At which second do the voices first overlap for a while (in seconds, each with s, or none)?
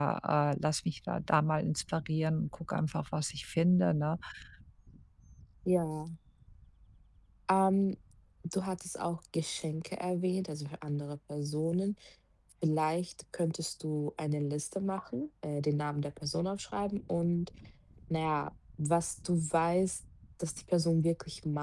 none